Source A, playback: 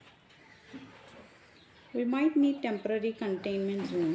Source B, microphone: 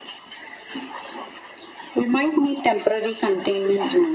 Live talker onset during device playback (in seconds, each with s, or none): none